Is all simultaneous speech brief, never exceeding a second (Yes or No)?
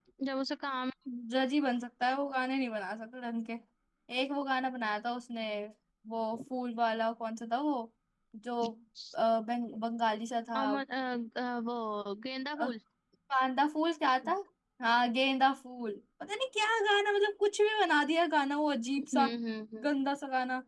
Yes